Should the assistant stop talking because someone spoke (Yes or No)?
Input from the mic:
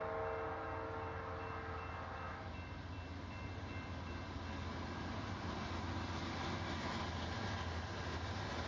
No